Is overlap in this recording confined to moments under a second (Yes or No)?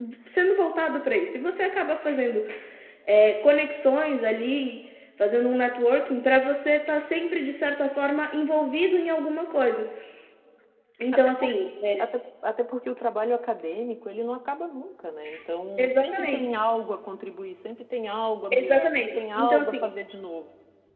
No